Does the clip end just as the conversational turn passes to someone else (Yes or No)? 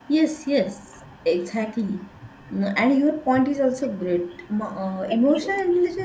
No